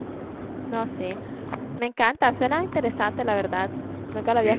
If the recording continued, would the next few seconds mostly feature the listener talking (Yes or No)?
Yes